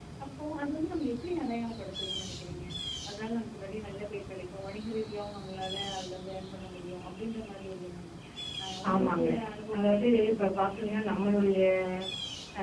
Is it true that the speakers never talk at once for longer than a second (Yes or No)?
No